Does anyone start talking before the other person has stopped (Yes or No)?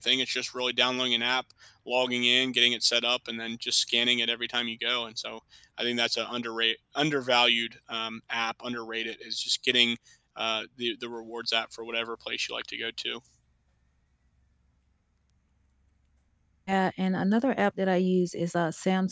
No